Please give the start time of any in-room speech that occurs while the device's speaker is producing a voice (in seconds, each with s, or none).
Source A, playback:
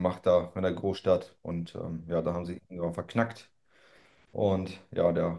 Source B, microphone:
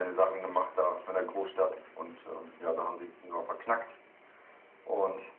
none